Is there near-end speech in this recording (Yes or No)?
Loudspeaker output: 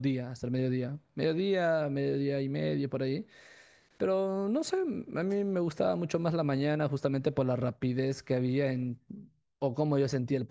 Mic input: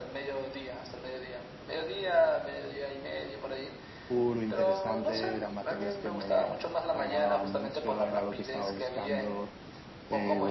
Yes